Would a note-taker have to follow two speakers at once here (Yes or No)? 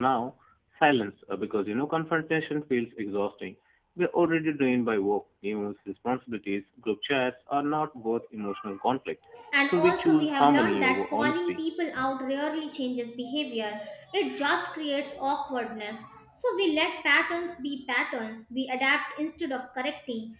Yes